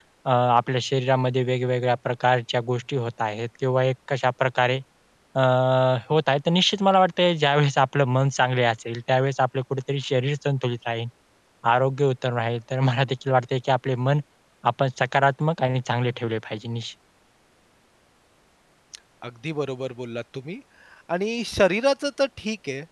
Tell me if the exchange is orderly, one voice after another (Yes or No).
Yes